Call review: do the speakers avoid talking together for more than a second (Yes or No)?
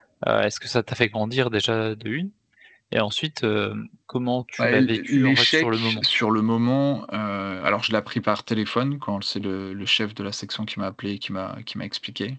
No